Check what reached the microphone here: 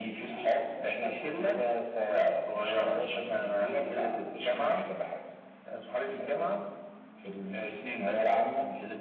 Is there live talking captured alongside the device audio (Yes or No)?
No